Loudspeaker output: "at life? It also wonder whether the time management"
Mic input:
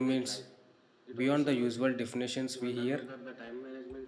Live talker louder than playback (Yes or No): Yes